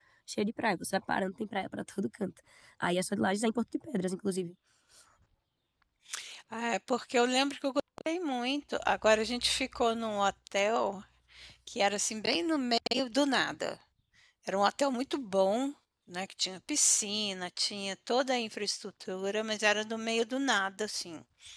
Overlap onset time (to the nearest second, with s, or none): none